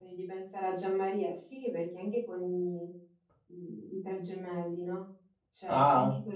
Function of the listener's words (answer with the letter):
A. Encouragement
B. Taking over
A